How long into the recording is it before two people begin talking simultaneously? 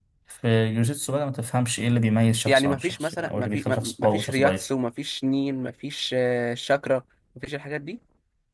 2.5 s

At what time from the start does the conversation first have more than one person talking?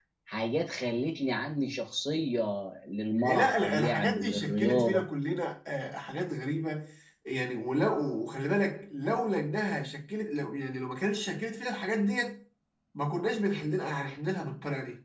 3.2 s

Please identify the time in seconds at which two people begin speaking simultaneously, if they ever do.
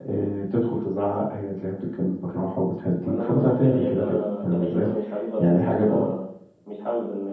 3.0 s

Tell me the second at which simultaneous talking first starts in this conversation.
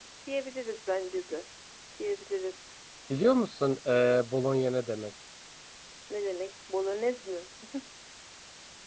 none

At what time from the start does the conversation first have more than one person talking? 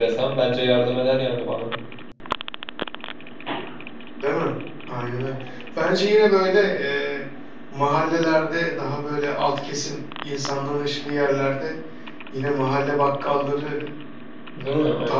none

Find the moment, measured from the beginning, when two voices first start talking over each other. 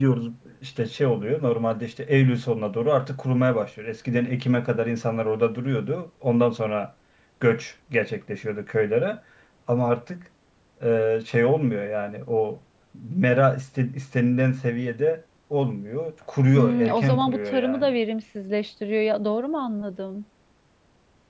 16.6 s

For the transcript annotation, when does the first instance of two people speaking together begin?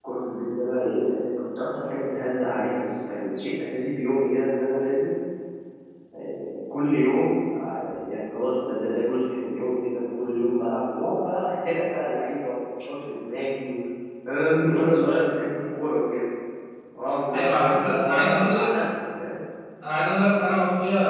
17.3 s

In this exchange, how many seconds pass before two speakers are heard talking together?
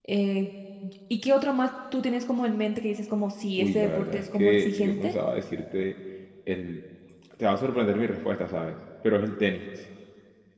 3.6 s

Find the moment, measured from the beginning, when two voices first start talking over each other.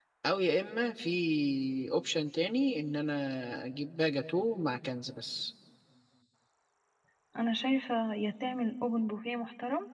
none

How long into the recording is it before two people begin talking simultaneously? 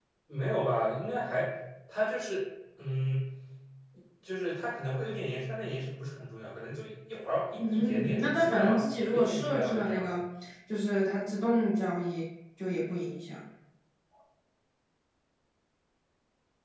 7.6 s

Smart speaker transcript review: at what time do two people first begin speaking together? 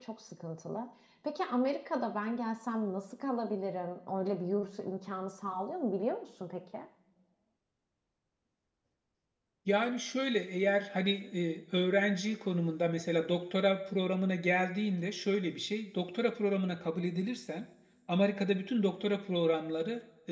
none

